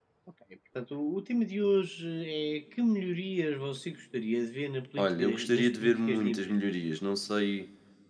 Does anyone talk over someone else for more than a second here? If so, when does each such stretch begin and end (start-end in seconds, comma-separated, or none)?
5.0-6.5